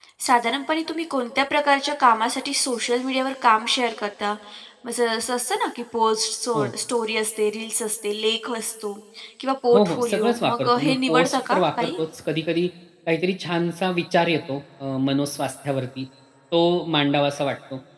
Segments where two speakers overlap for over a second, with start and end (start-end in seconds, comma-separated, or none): 9.7-12.0